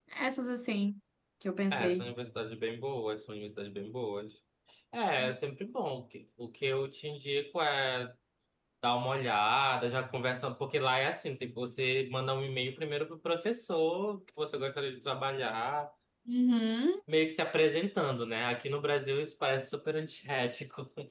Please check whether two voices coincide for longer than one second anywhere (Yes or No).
No